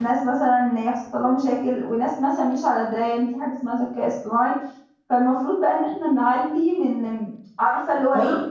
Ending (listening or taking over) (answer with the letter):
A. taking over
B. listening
B